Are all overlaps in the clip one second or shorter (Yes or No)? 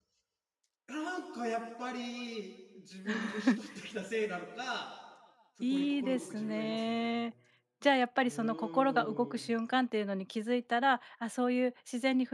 No